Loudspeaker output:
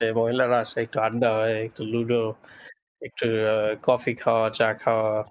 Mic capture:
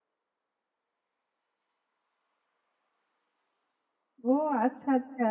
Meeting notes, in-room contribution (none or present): present